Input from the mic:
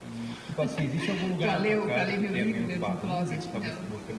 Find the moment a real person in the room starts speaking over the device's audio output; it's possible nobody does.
none

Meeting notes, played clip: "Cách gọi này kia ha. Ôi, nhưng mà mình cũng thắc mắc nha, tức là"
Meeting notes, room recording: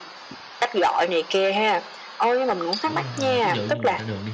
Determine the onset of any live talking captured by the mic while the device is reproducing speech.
2.8 s

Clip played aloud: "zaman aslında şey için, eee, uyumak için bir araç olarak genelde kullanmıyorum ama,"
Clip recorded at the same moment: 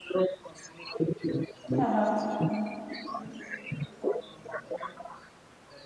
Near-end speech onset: 1.8 s

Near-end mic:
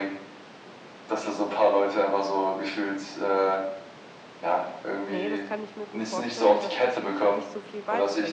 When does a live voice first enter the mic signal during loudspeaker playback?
5.1 s

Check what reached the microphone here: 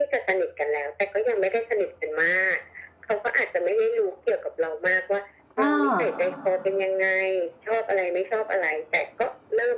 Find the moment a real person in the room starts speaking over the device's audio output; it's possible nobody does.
5.6 s

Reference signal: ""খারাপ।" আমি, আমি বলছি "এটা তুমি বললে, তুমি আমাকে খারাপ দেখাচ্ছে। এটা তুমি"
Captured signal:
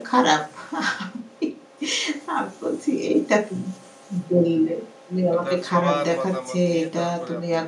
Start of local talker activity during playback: 5.3 s

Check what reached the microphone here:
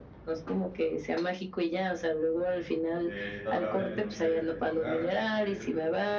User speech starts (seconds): 3.0 s

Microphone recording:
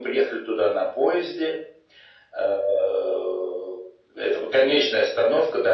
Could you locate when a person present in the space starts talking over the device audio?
none

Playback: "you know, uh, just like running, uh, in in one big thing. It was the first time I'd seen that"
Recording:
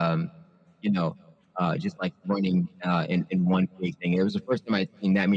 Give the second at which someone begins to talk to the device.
none

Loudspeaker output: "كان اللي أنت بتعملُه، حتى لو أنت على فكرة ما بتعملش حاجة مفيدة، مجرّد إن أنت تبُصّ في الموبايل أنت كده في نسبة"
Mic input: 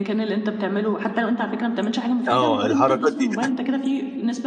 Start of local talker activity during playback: 2.3 s

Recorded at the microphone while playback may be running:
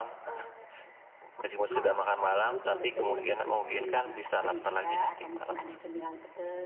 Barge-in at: 1.7 s

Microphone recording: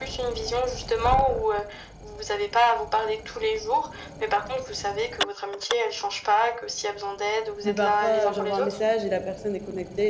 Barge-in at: 7.6 s

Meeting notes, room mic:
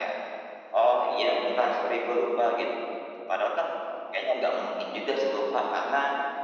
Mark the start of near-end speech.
none

